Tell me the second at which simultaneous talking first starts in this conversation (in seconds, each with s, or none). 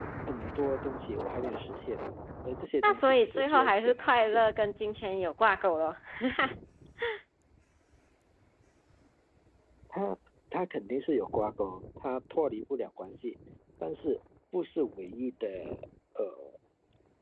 2.8 s